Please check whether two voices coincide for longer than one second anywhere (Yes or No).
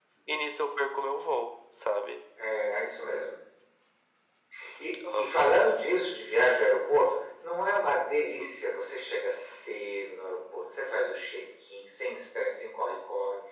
No